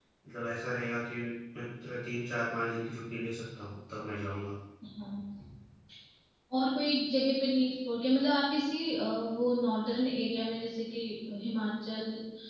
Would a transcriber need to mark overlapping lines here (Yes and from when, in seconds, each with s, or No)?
No